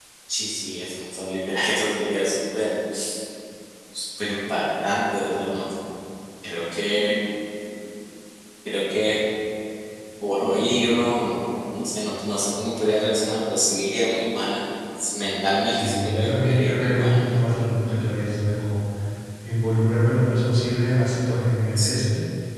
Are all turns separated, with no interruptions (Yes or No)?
No